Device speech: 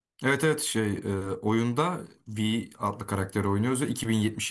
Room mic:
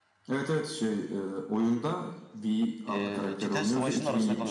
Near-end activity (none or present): present